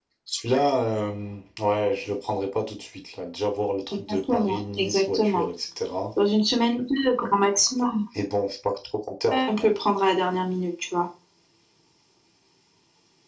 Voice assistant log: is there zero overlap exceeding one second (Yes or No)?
No